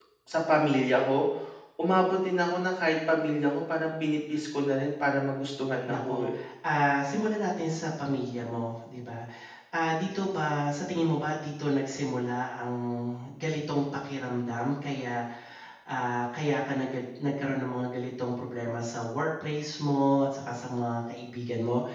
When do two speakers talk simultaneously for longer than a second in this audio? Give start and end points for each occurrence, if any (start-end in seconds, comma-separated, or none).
none